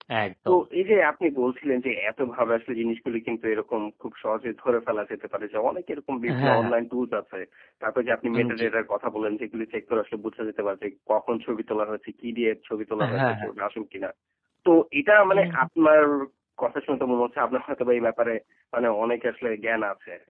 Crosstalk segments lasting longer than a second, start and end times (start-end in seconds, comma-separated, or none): none